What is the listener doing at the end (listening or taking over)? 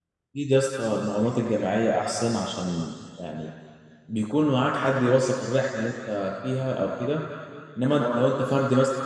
listening